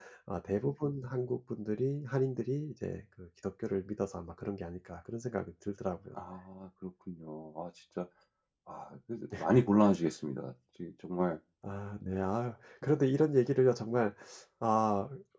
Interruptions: none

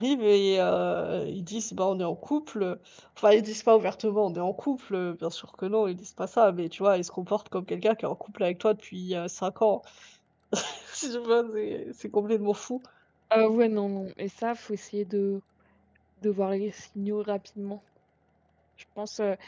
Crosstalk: none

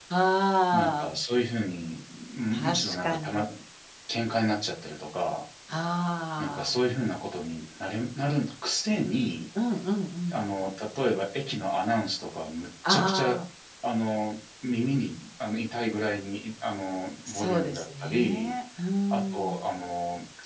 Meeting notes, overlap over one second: present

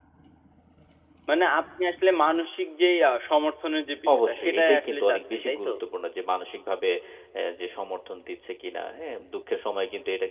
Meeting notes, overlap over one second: present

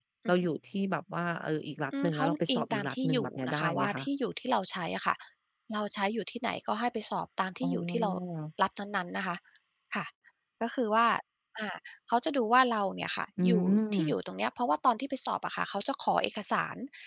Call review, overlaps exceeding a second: present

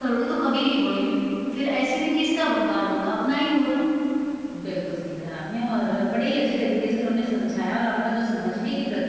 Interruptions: none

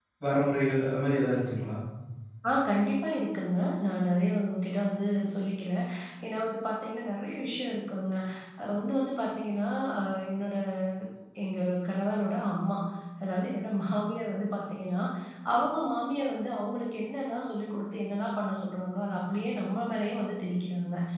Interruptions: none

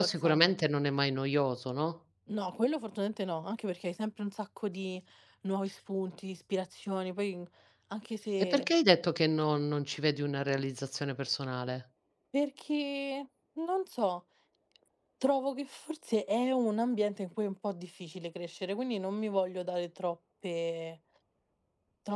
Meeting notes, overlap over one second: none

